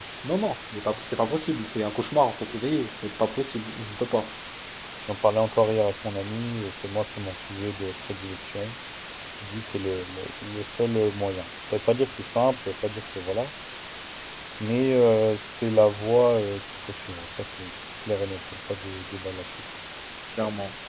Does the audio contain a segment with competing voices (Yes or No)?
No